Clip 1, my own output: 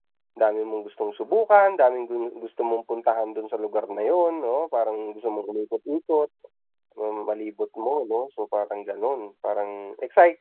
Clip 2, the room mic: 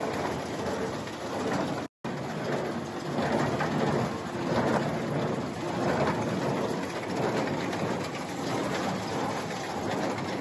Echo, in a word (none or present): none